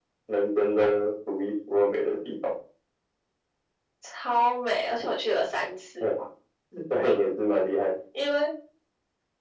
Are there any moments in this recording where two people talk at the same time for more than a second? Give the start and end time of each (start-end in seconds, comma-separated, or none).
none